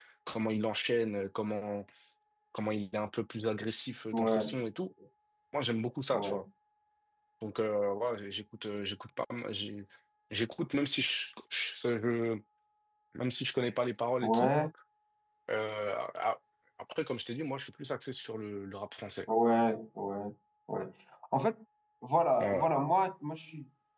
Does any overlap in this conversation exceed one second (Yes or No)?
No